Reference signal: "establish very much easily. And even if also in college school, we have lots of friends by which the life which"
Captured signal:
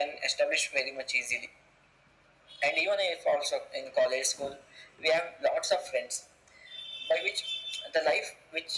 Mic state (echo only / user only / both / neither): echo only